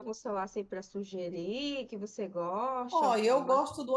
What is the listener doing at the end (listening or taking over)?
taking over